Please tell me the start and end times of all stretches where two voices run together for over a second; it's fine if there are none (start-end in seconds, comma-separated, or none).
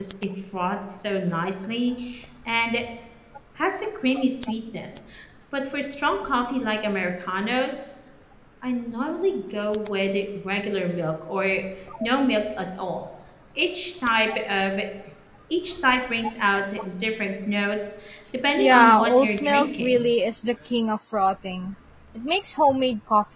18.6-20.1